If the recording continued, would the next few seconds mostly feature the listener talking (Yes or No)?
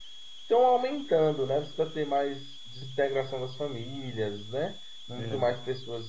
No